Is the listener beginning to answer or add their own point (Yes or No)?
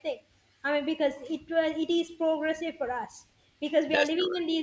No